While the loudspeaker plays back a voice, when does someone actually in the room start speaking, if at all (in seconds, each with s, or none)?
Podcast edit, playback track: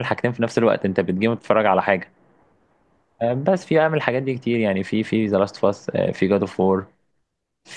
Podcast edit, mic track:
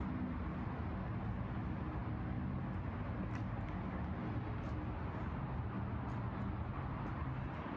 none